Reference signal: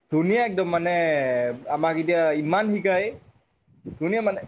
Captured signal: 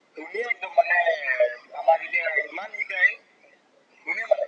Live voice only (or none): none